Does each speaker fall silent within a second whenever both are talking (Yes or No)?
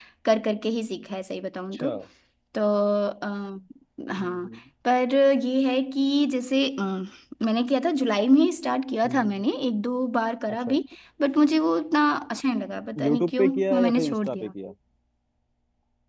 No